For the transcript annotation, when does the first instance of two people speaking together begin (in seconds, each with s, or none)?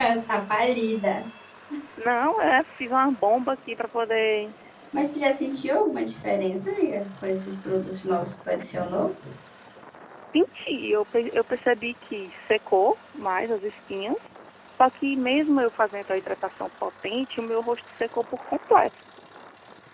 none